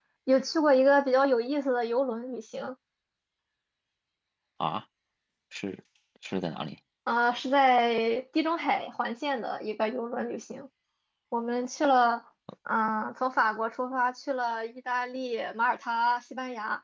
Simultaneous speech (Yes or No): No